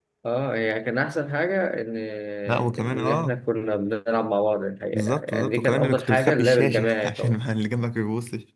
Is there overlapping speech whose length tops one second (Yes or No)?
Yes